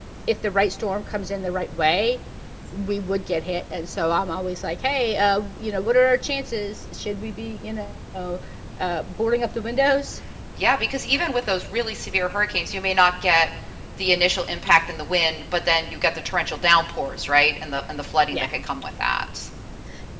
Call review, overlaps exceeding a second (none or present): none